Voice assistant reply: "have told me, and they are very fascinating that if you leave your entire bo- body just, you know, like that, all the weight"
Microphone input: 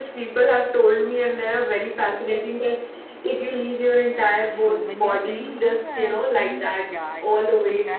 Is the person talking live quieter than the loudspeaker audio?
Yes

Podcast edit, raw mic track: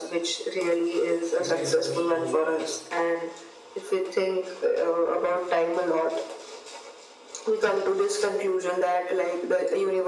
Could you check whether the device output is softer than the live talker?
No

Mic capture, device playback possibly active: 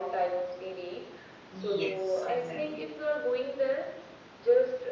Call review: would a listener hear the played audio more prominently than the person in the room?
Yes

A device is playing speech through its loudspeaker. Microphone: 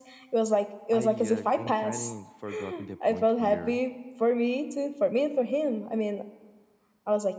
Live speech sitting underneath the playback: Yes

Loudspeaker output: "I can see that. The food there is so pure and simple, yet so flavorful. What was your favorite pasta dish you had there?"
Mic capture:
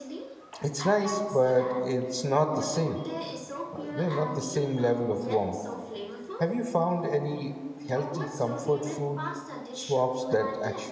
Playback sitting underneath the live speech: Yes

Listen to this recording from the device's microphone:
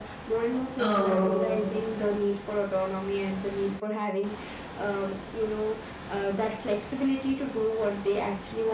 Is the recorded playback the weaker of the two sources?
Yes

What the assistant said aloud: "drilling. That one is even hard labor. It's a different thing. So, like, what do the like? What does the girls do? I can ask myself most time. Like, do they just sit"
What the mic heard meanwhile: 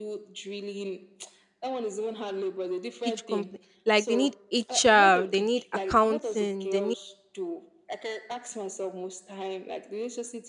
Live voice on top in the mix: Yes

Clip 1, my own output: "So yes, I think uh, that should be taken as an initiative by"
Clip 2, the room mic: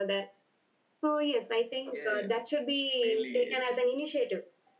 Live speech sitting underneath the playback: Yes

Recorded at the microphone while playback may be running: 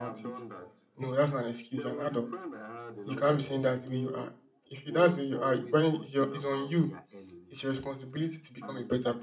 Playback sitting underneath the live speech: Yes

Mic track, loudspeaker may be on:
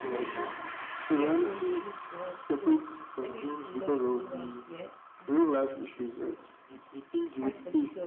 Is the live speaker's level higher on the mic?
No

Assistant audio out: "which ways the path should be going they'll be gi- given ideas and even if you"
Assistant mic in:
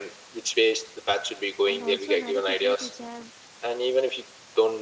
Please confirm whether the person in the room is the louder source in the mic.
No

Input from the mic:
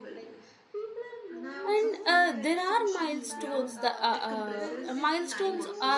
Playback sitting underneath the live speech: Yes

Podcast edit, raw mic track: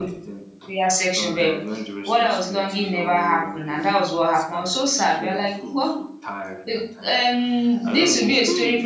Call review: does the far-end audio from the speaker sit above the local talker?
No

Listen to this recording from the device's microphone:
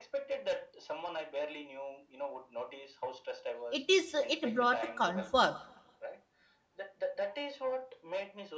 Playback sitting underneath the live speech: Yes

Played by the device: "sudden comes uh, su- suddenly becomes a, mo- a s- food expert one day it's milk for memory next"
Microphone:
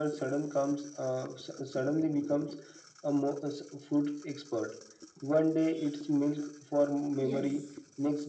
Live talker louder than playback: No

